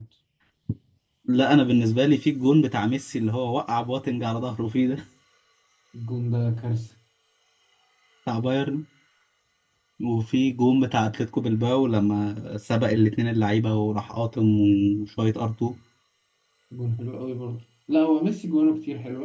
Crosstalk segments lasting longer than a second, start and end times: none

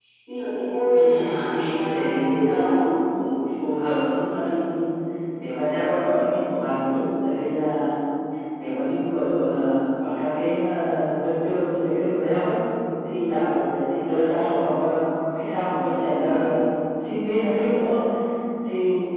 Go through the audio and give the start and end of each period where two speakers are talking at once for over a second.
0.9-2.8

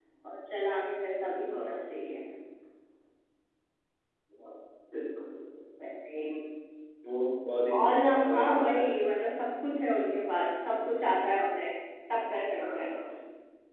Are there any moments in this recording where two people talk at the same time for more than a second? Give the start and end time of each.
7.7-9.0

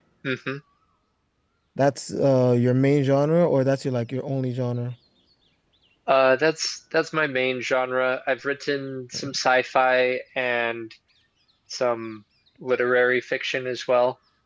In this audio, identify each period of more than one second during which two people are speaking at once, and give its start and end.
none

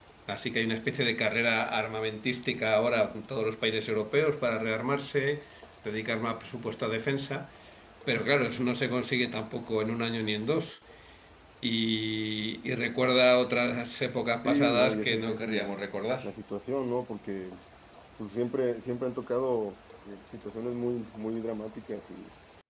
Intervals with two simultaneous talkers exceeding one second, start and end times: 14.4-15.7

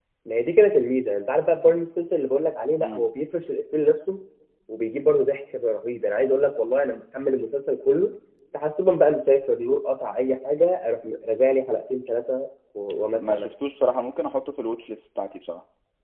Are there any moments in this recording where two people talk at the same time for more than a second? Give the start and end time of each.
none

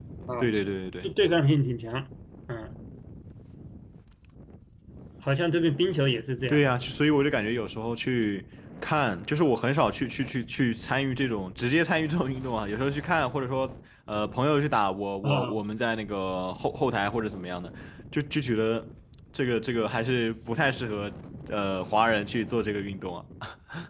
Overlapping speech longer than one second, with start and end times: none

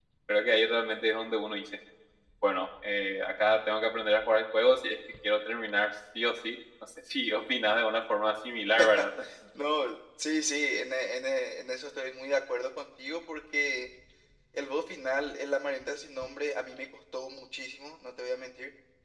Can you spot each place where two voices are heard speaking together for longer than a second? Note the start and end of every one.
none

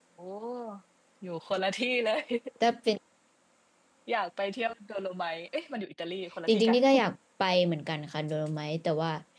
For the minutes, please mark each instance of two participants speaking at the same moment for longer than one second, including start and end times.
none

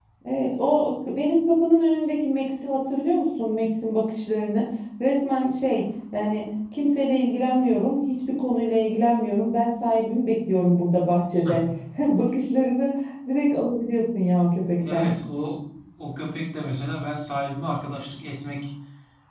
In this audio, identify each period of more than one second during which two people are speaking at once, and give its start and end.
none

